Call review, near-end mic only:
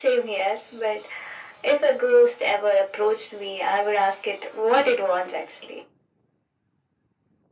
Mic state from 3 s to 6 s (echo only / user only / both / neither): echo only